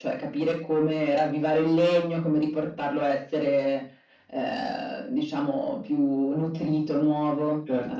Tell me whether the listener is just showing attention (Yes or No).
No